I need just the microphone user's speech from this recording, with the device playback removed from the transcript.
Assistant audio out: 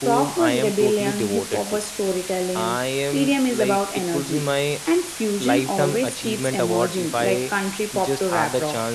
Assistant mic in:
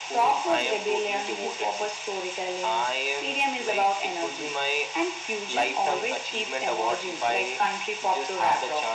none

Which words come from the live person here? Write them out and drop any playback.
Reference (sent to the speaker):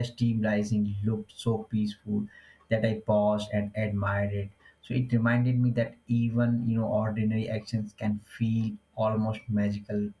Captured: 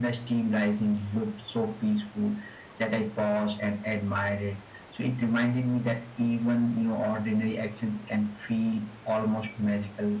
none

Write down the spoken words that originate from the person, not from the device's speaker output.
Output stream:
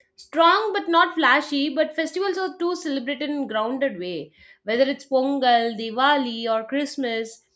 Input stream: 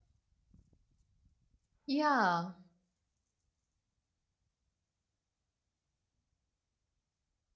Yeah,

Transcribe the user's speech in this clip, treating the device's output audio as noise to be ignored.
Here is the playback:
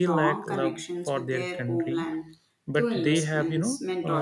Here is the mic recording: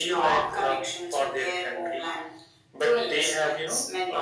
none

